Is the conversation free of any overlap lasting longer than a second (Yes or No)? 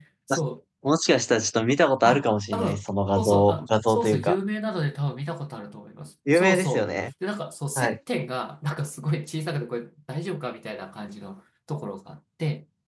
No